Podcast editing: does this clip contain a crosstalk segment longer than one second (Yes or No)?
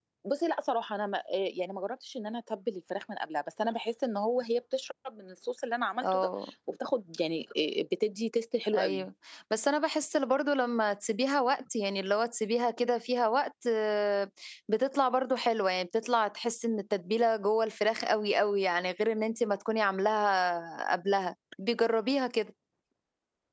No